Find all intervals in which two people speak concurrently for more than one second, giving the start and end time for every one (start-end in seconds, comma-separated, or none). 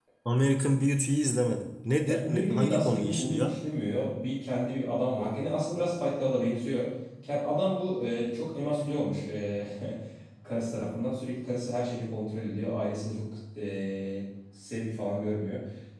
2.0-3.5